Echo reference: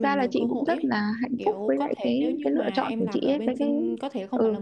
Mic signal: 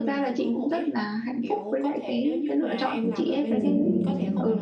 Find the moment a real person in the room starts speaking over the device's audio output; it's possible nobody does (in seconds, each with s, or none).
3.5 s